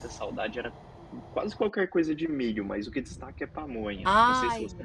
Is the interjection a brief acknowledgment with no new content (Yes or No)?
No